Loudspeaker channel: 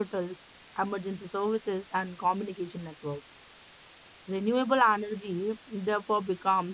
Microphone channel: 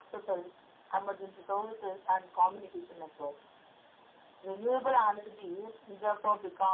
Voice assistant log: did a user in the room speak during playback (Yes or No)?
No